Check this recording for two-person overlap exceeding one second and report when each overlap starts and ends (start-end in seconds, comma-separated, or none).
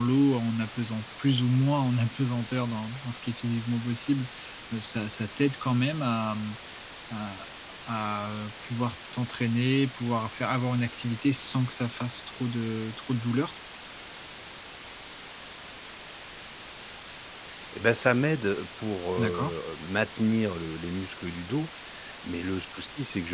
none